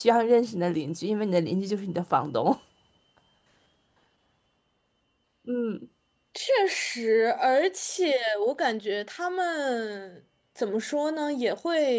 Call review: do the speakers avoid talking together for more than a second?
Yes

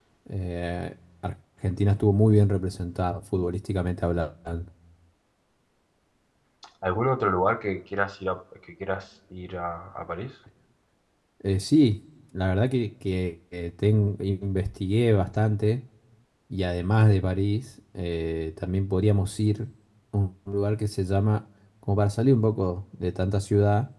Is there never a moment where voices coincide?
Yes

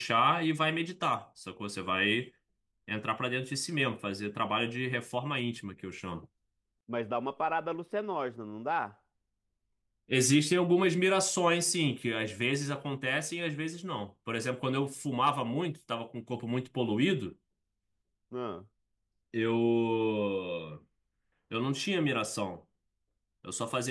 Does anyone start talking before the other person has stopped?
No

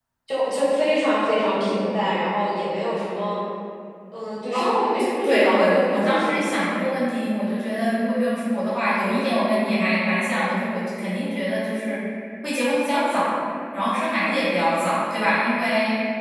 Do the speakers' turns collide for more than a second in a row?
Yes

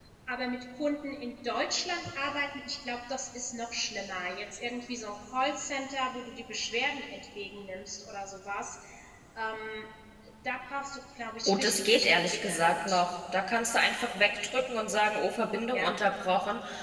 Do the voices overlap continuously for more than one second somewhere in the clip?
Yes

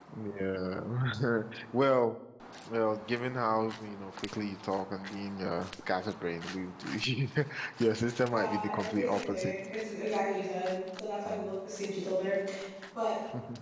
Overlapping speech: Yes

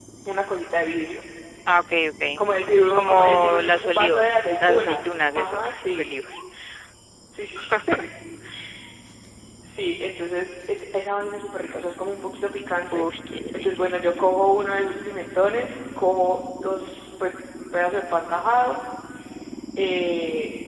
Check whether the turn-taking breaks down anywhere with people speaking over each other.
Yes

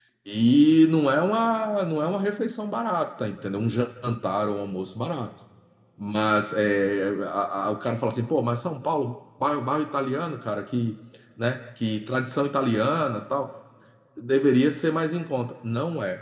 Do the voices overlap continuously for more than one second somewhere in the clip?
No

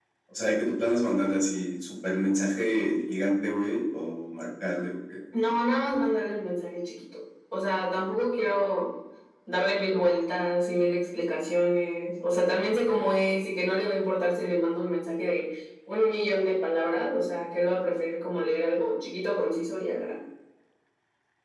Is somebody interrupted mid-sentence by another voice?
No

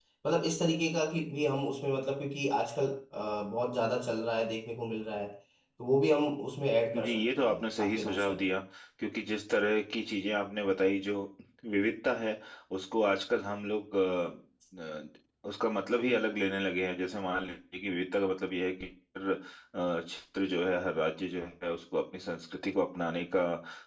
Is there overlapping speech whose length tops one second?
Yes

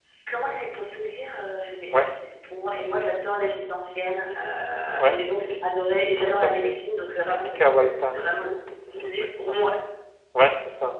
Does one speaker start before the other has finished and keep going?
Yes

